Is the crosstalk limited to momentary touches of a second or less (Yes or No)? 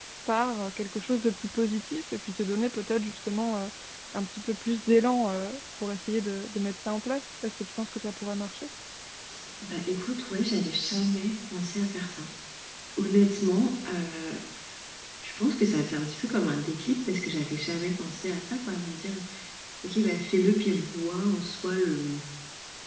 Yes